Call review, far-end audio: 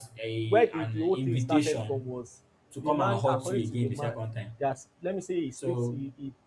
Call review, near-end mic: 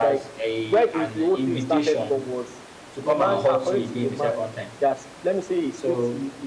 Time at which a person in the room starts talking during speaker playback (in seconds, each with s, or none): none